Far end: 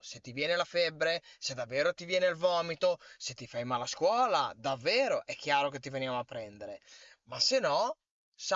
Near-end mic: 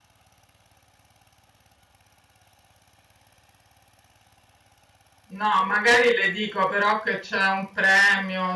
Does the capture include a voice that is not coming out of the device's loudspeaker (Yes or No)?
Yes